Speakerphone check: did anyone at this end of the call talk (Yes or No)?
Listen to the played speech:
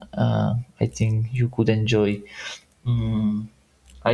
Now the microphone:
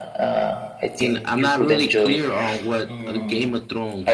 Yes